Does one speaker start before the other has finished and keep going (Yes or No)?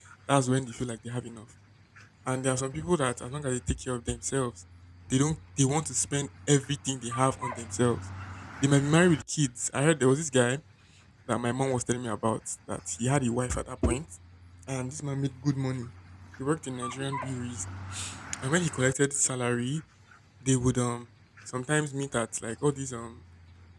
No